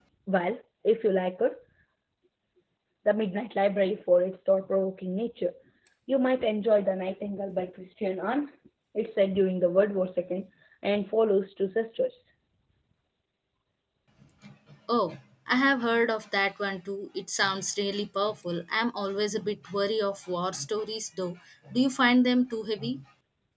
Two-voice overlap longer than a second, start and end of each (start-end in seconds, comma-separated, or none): none